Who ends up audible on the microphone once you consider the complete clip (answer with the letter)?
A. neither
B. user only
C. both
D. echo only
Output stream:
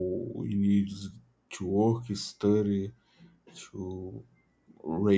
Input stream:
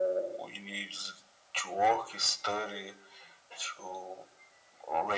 D